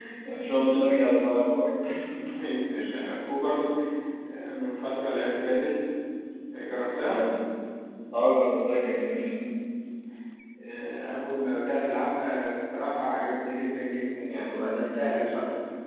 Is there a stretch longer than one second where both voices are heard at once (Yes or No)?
No